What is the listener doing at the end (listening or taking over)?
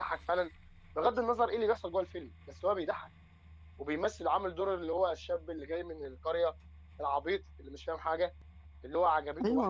taking over